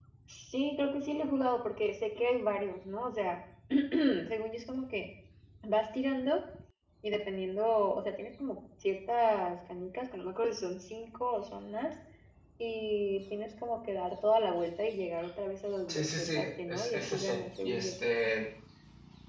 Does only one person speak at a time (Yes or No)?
No